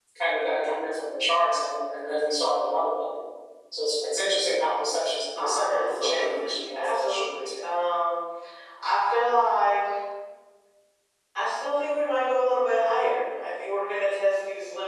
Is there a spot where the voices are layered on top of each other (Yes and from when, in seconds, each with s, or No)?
Yes, from 5.4 s